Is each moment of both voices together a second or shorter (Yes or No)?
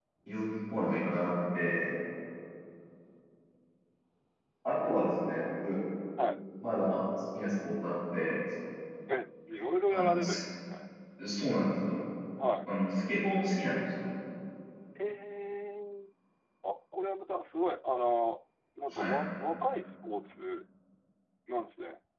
Yes